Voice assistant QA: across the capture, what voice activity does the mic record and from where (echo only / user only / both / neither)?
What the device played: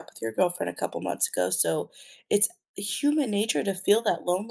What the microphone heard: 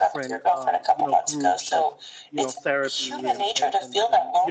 both